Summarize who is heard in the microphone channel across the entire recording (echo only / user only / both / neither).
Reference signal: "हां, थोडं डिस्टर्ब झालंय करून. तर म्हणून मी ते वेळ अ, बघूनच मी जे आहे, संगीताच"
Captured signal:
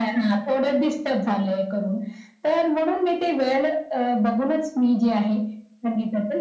echo only